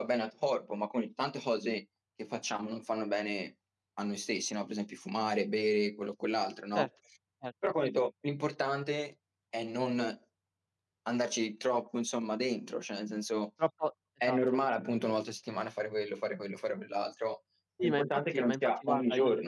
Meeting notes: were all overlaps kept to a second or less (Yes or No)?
No